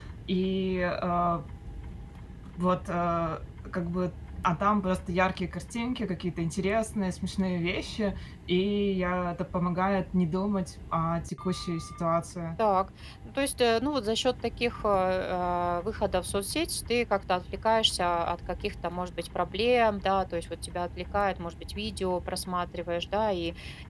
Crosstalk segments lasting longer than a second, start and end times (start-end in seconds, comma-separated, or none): none